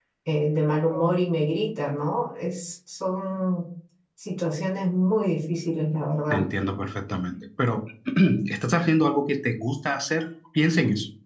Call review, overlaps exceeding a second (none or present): none